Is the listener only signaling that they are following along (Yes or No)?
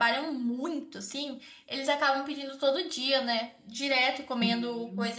Yes